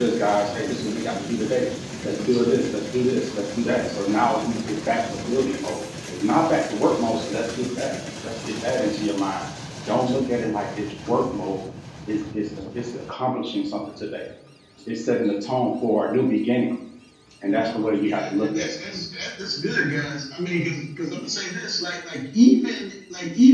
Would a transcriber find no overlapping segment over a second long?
No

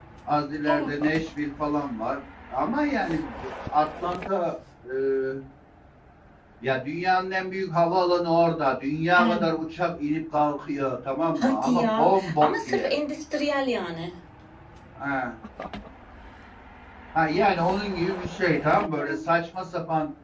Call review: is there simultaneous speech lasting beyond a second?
Yes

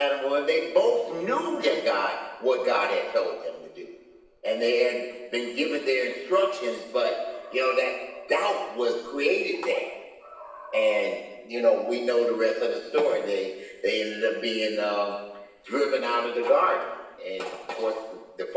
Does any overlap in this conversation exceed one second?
No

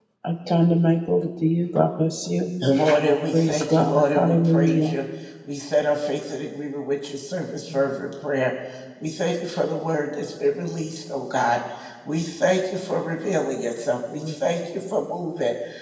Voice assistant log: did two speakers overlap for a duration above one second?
Yes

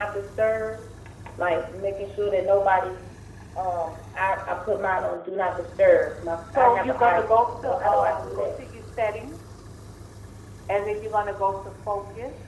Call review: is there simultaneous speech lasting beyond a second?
Yes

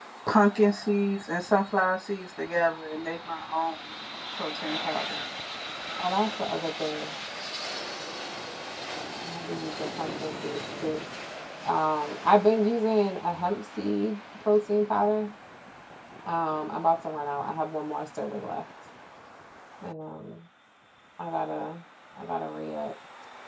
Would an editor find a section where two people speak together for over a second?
No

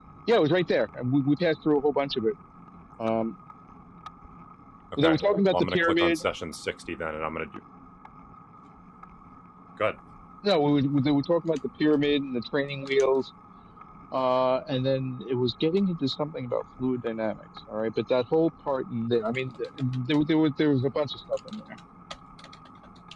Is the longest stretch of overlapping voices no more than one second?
No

